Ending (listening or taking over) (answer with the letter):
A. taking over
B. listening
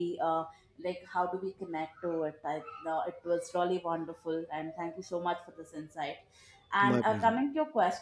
B